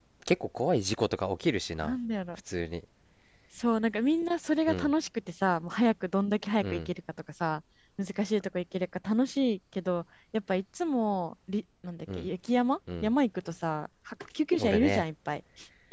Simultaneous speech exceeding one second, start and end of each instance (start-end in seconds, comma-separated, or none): none